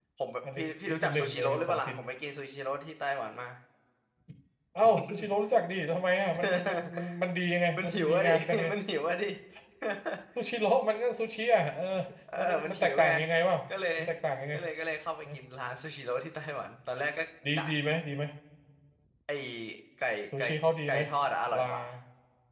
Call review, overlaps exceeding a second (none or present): present